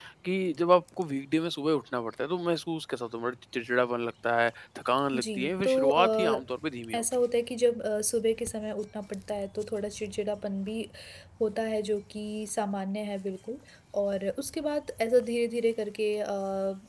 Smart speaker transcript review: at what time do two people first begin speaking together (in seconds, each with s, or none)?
5.1 s